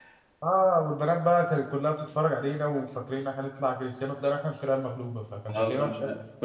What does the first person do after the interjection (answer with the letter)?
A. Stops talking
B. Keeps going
A